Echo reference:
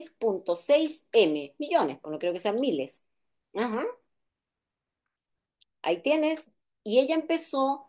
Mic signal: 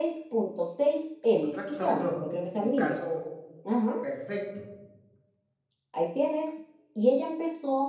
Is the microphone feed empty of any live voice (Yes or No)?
No